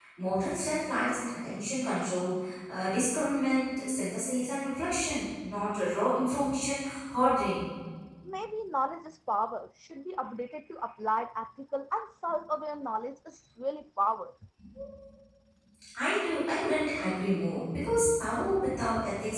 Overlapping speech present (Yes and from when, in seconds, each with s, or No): No